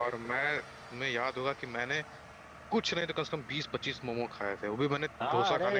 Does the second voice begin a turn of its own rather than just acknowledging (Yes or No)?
Yes